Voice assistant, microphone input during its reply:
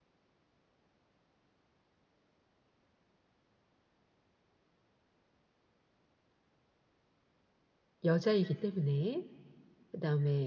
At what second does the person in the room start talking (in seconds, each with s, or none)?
8.0 s